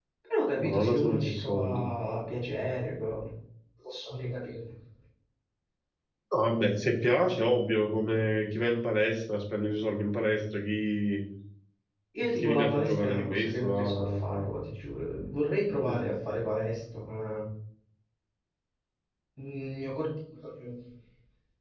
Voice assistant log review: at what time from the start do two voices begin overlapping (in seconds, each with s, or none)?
0.6 s